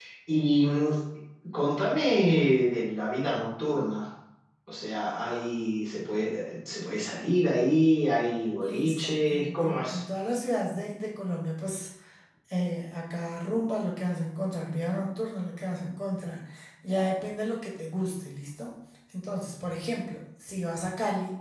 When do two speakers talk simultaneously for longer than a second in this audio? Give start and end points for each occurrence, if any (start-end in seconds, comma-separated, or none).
8.6-10.0